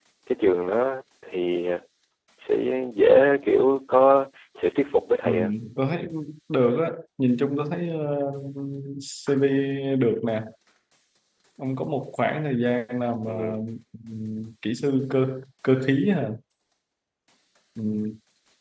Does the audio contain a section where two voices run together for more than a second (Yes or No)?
No